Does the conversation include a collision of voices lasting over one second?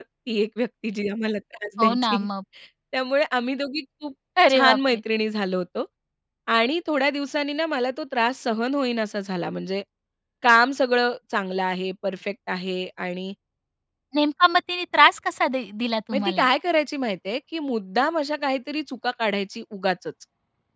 No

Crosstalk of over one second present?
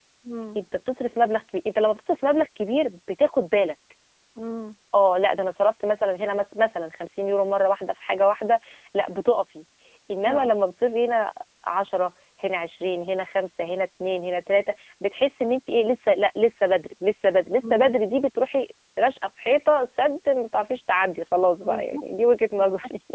No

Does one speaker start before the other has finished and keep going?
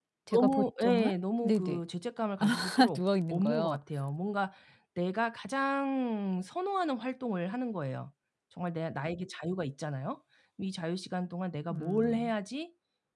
Yes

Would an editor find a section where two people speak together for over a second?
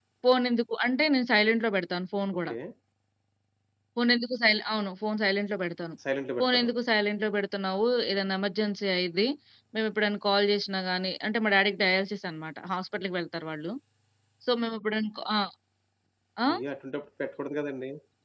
No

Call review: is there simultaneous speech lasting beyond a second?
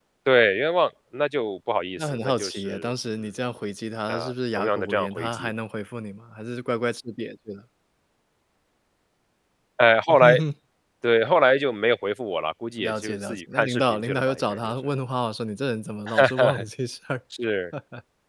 Yes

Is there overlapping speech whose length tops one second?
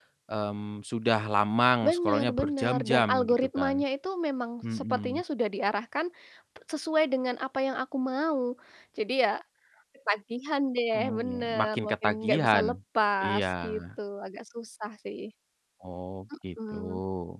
Yes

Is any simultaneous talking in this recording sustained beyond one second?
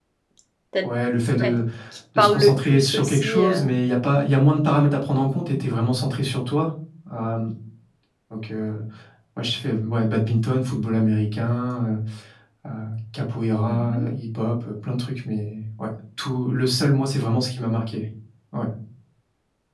Yes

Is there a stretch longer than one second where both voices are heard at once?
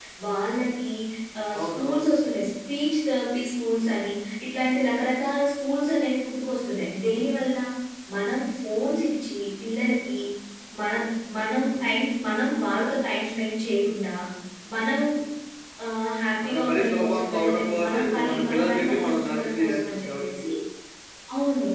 Yes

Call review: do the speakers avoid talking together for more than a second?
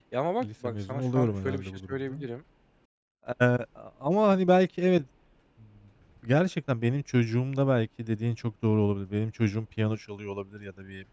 No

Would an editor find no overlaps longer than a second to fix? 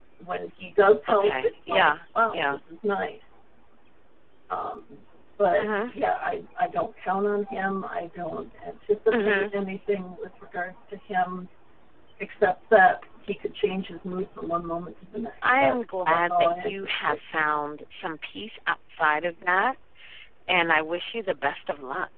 No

